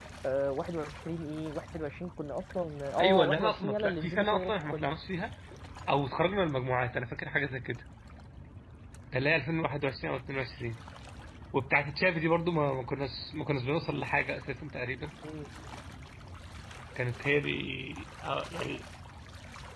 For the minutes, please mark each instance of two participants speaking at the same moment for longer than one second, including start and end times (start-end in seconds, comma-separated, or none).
3.0-5.0